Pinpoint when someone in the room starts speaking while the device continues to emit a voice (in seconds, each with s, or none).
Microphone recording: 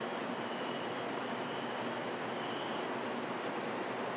none